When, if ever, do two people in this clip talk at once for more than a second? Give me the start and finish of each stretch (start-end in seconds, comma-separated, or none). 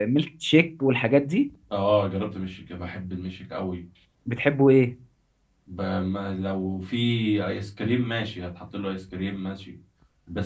none